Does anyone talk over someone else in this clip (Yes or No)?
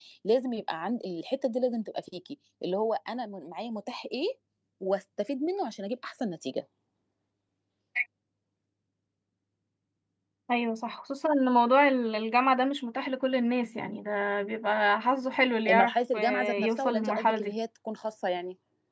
Yes